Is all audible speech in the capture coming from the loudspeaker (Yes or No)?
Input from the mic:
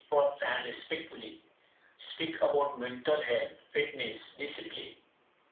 Yes